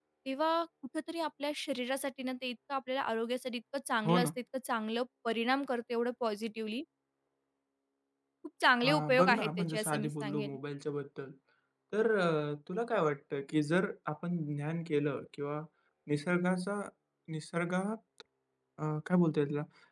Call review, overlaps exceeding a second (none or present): present